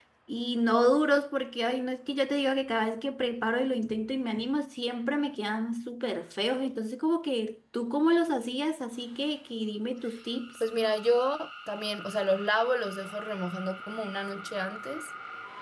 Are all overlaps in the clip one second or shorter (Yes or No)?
Yes